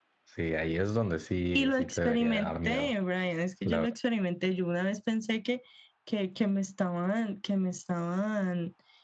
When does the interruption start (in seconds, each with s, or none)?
1.6 s